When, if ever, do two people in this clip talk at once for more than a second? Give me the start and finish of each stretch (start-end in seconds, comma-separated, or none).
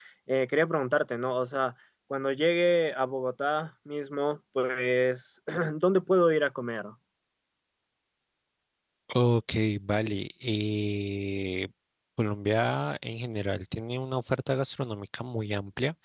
none